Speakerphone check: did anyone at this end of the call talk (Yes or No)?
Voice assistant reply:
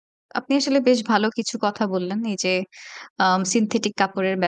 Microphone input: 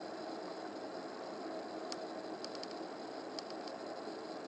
No